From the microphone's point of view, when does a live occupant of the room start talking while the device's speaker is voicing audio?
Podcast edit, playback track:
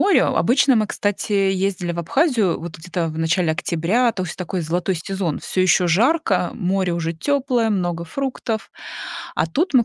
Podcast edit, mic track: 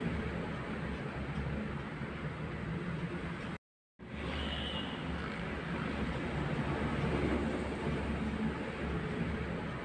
none

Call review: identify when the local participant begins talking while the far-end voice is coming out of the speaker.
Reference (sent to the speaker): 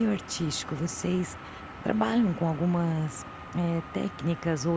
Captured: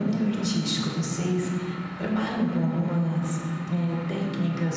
none

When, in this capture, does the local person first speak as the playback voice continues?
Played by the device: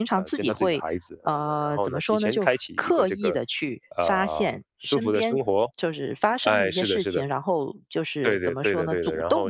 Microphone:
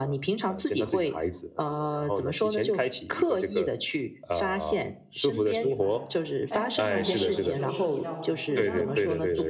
5.5 s

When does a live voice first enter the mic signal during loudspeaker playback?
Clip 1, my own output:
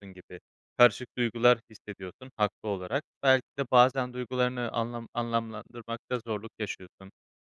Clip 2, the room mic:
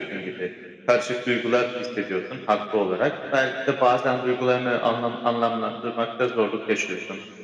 none

